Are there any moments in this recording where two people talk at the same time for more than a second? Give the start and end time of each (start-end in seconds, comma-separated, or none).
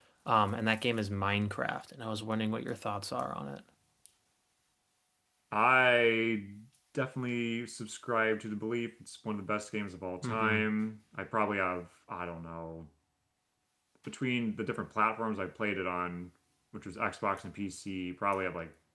none